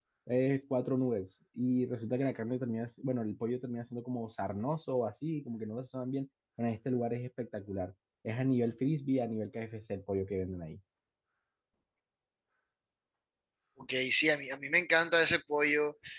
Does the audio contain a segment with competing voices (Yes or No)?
No